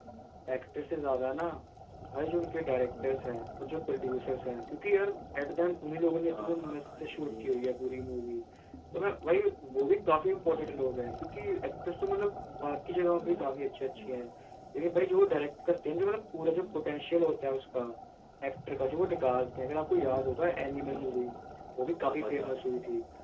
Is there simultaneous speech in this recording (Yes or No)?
Yes